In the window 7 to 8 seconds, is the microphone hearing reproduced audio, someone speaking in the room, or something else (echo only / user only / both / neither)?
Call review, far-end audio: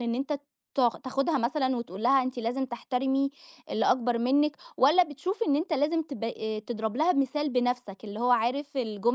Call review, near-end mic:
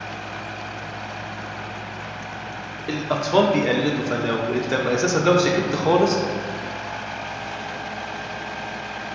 neither